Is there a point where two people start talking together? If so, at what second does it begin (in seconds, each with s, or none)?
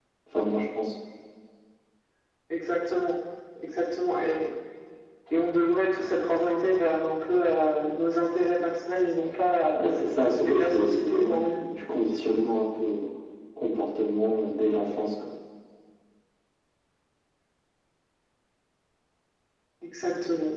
10.2 s